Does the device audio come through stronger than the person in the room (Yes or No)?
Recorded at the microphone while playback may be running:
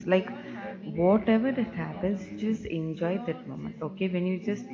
No